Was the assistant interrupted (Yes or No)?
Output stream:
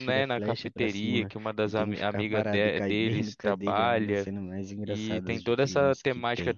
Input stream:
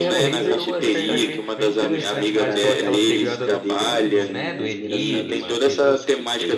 Yes